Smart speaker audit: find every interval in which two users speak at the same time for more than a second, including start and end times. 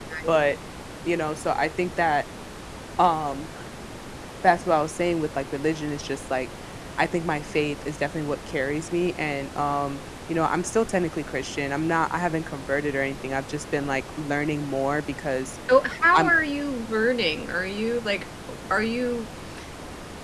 none

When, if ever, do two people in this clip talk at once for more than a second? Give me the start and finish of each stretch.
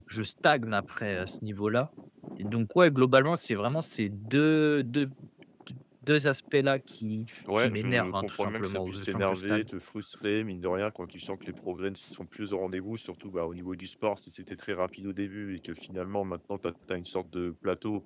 7.6-9.7

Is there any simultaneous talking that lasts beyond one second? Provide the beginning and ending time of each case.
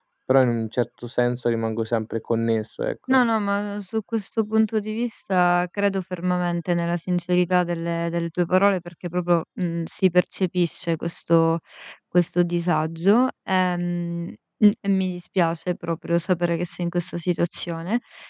none

